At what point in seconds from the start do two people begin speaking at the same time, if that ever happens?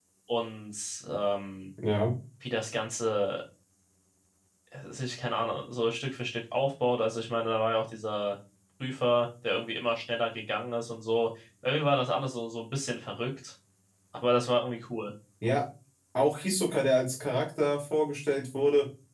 none

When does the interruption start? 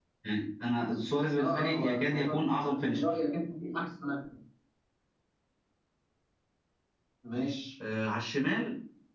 1 s

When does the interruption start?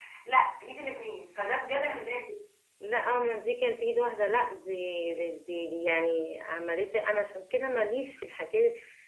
none

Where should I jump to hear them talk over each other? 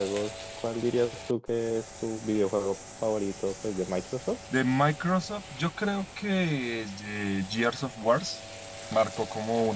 none

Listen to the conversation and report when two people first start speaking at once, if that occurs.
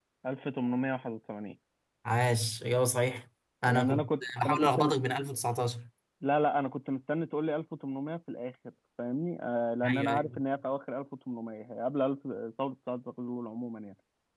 4 s

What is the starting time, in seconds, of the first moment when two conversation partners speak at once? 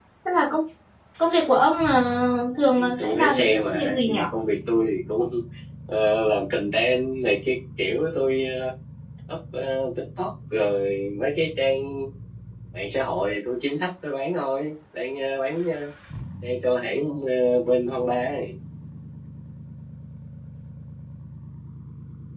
3 s

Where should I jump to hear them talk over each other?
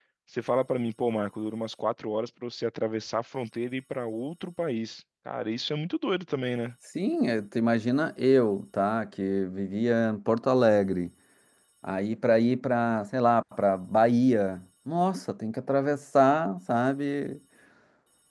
none

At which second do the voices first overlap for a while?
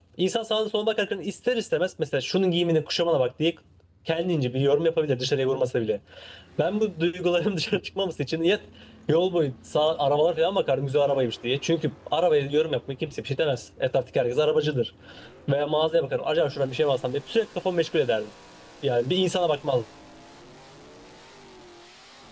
none

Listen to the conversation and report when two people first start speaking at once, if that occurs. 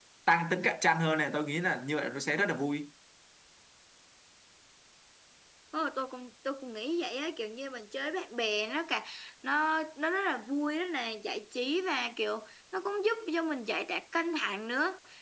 none

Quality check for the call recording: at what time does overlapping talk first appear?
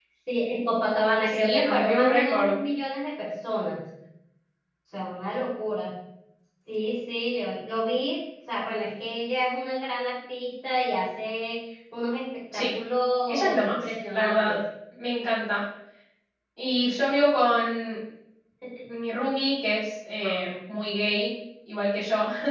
1 s

